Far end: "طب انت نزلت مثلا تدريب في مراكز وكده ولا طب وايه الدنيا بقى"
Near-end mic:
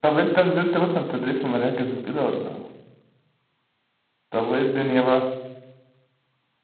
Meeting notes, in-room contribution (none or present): none